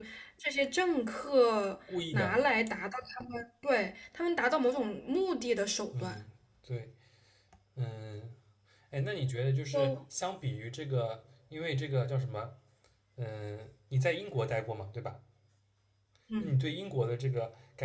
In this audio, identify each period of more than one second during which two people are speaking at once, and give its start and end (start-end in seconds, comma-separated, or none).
none